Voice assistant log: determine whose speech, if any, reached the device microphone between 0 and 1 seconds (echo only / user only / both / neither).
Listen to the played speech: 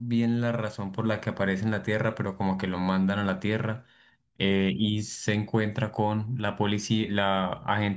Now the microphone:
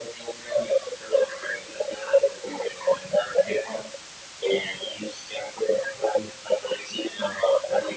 echo only